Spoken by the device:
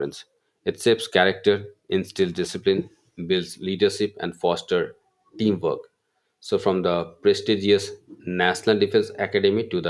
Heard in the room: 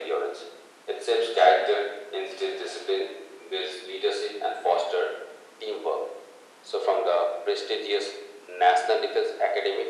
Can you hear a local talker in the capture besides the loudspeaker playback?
No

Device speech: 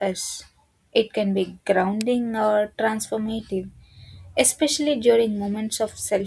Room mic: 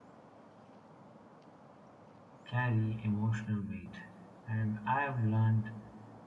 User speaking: Yes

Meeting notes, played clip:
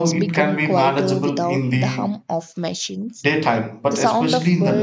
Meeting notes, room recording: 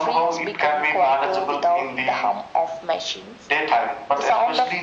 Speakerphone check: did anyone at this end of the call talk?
No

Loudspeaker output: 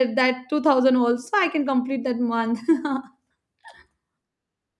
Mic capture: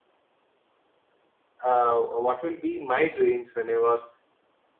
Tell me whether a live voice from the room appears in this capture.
Yes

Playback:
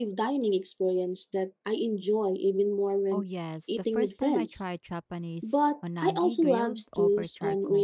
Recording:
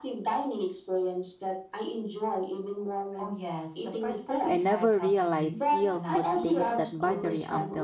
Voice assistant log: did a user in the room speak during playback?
Yes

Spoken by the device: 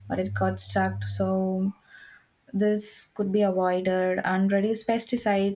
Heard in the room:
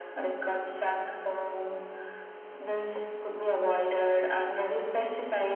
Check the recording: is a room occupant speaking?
No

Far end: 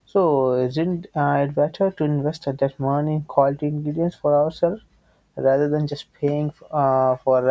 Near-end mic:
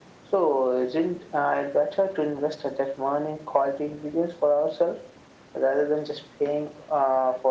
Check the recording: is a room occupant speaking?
No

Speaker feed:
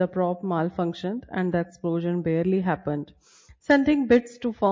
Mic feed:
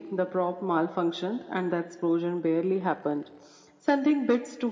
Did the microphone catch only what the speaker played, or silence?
Yes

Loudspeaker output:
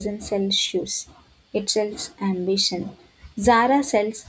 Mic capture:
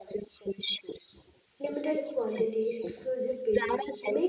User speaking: Yes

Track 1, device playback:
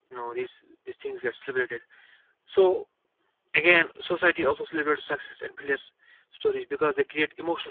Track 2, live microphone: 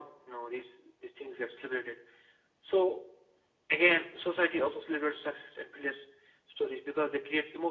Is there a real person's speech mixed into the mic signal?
No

